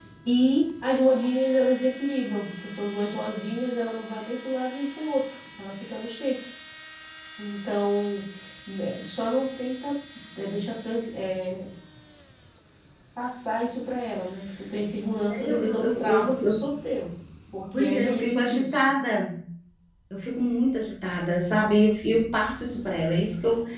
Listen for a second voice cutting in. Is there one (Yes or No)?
Yes